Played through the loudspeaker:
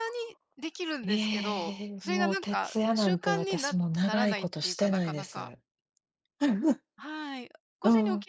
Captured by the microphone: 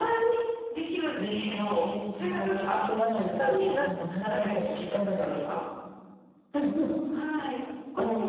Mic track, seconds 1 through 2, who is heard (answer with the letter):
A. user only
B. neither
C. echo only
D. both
C